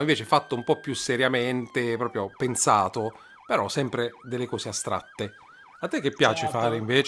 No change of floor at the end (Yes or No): No